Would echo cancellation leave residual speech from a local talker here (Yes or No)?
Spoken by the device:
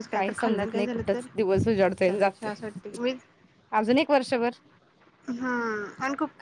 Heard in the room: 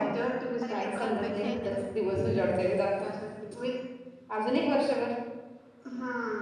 Yes